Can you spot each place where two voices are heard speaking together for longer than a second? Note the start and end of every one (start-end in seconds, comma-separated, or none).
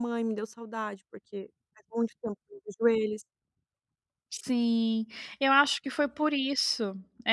none